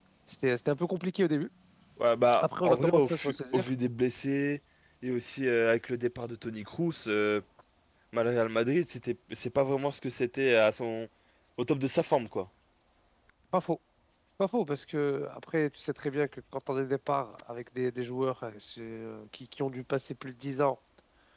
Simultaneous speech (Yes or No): Yes